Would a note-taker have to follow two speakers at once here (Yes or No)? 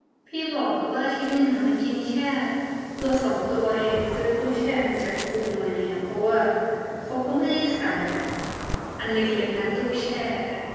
No